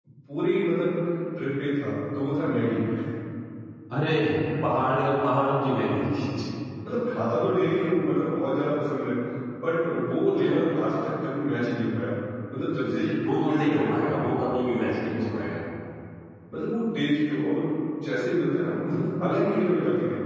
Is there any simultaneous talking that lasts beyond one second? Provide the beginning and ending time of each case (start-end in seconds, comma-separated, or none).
12.8-14.0